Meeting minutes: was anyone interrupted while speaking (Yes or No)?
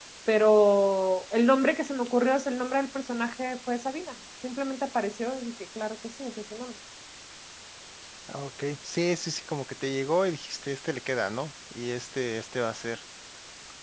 No